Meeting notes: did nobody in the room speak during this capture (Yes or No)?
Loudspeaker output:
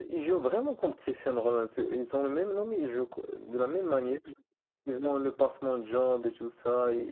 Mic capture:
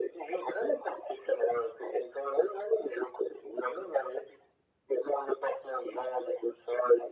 Yes